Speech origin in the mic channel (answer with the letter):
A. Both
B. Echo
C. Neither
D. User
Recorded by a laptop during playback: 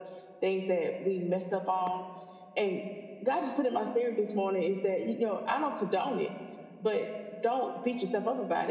B